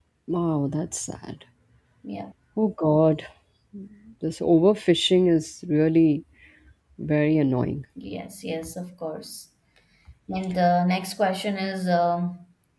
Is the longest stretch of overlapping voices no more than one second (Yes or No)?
Yes